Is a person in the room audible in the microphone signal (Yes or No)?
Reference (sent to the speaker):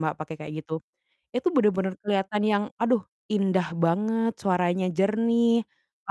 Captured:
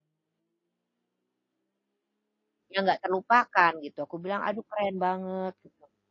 Yes